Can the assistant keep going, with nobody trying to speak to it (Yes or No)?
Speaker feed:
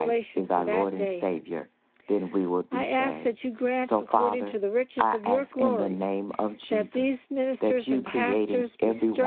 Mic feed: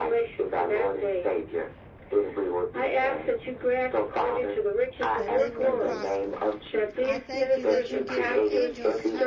No